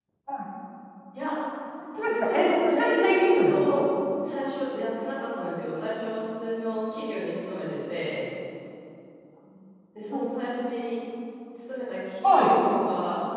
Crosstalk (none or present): present